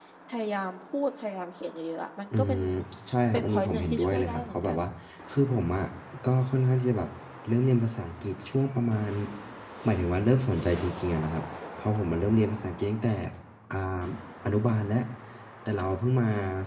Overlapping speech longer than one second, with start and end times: 3.3-4.8

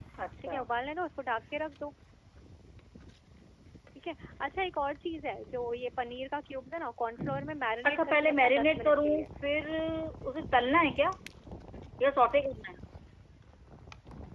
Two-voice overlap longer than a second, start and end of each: 7.9-9.2

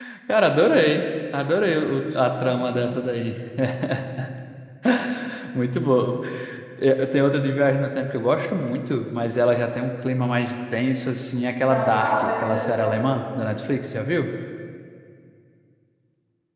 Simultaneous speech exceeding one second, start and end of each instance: 11.6-13.0

